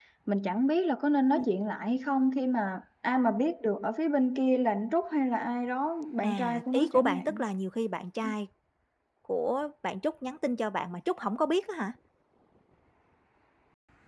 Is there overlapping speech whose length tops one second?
Yes, from 6.2 s

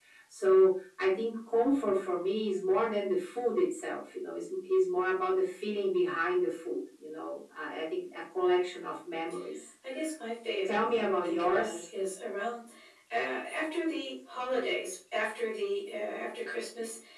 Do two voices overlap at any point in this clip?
Yes, from 10.6 s

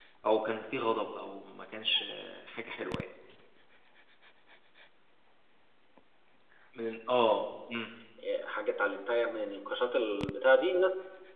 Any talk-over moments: No

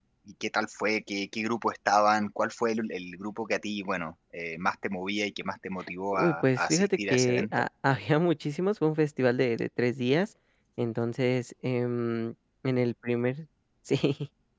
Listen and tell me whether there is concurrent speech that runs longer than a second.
Yes, from 6.1 s

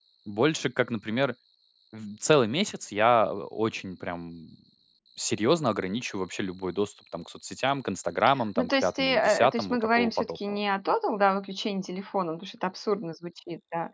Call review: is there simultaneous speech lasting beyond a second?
Yes, from 8.6 s

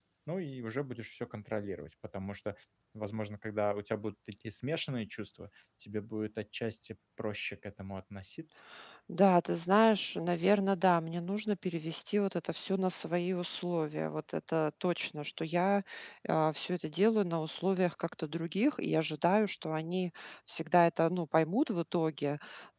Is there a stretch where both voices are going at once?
No

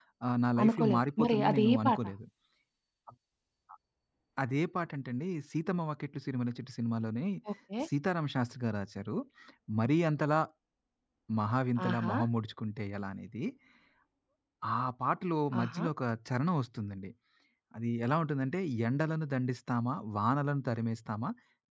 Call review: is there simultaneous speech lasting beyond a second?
Yes, from 0.6 s

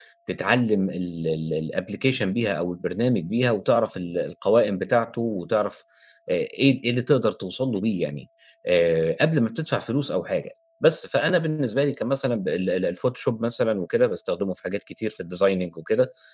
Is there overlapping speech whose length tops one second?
No

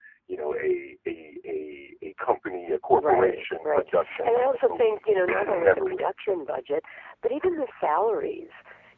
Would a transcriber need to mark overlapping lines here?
Yes, from 3.0 s

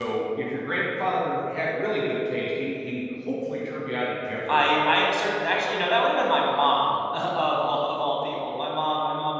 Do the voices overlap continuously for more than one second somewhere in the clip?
No

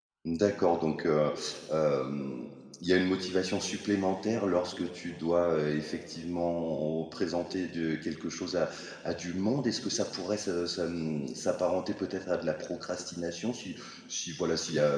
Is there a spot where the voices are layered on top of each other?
No

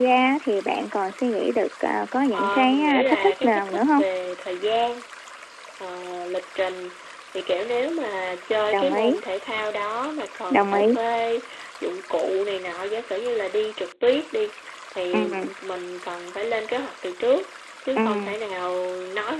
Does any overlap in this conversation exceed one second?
Yes, from 2.3 s

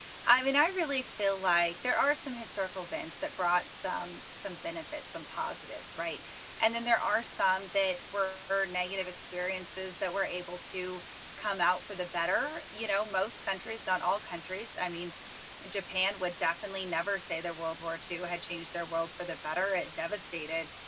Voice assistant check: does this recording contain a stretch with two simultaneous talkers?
No

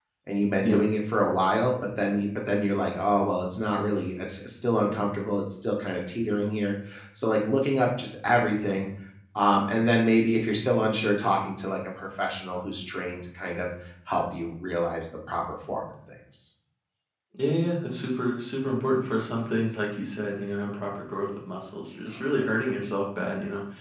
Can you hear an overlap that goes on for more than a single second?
No

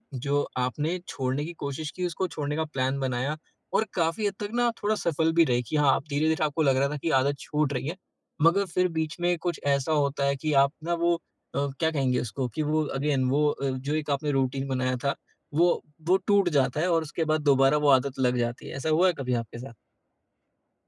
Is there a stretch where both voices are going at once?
No

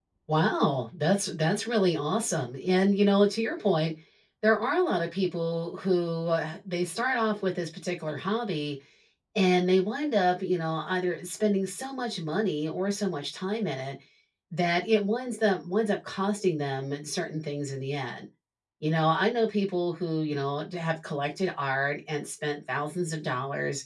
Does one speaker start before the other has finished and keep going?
No

